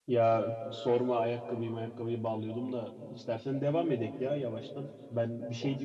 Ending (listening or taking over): listening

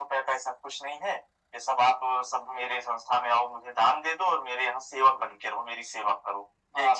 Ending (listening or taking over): taking over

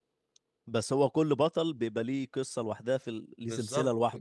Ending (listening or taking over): taking over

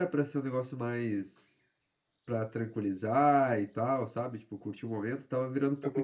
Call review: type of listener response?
taking over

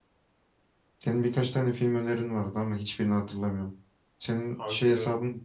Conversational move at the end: listening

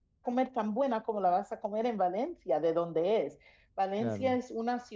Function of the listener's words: listening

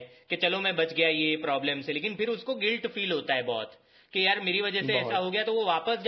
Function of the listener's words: listening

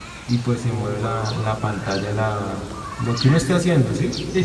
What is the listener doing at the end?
taking over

